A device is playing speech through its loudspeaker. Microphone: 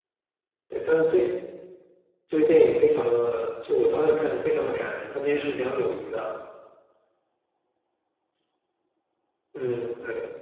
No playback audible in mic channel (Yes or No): Yes